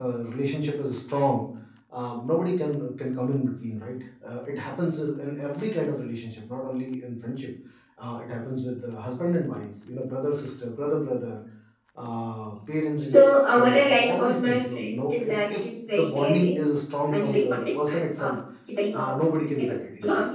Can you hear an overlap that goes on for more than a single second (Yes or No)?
Yes